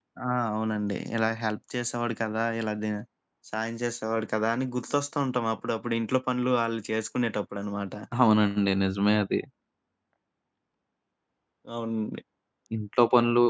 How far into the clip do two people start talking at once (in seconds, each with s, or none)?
none